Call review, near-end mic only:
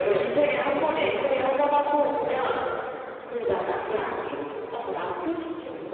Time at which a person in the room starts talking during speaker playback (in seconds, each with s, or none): none